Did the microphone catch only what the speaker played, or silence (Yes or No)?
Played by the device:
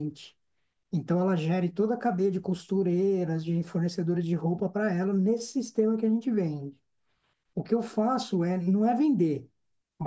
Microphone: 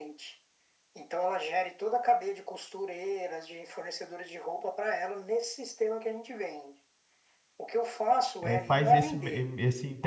No